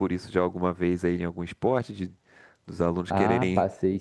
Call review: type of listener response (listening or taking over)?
taking over